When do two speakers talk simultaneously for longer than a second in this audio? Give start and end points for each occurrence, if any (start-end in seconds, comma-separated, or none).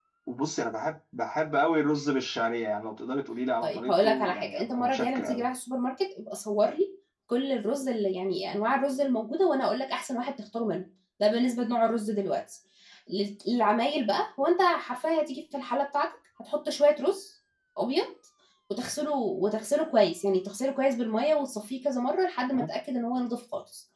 3.6-5.4